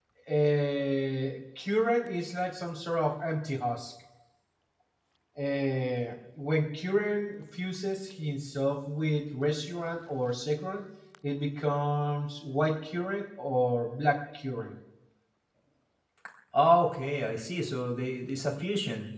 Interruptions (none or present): none